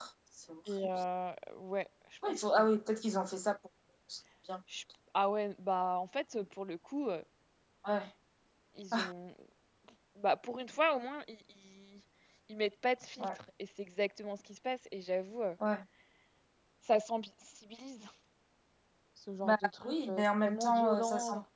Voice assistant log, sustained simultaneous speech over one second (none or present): present